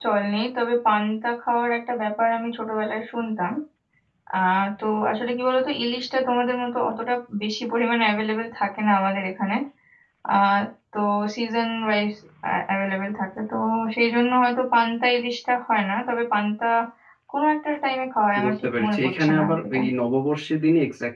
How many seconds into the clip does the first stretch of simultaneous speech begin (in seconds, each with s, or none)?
18.4 s